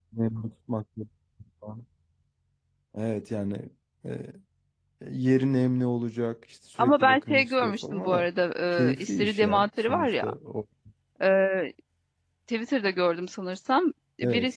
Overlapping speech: Yes, from 6.8 s

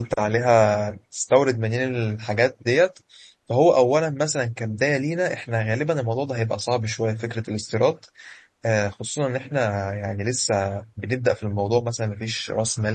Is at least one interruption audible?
No

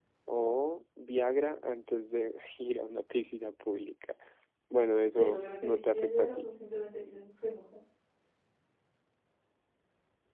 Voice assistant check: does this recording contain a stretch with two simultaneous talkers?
Yes, from 5.2 s

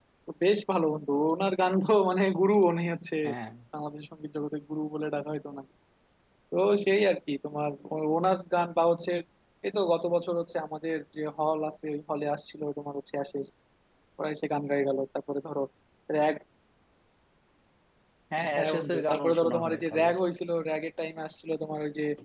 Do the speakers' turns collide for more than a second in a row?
Yes, from 18.5 s

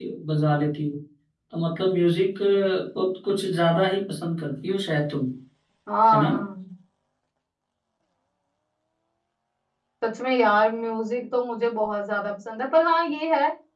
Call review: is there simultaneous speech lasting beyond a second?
No

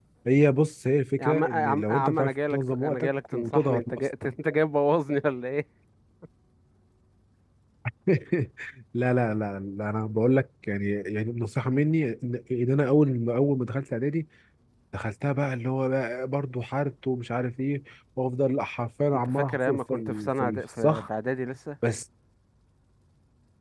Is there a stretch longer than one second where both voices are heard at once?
Yes, from 1.2 s

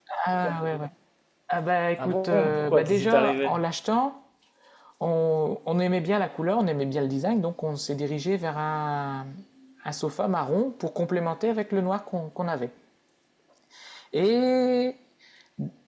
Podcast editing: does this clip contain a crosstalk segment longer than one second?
Yes, from 2.0 s

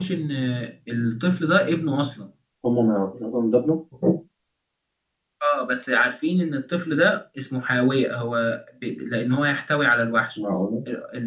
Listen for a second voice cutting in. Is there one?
No

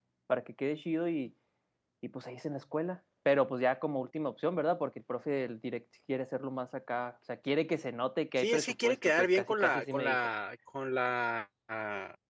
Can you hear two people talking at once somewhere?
Yes, from 8.4 s

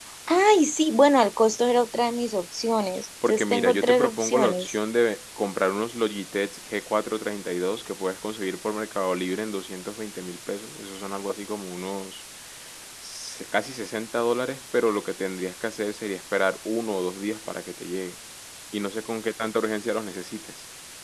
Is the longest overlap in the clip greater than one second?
Yes, from 3.2 s

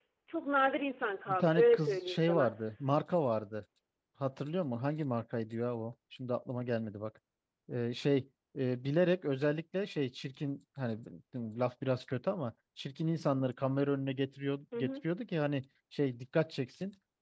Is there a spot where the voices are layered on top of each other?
Yes, from 1.3 s

